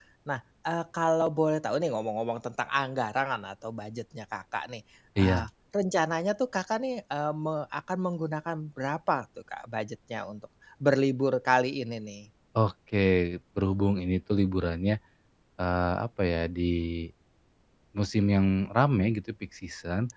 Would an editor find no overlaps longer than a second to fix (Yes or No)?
Yes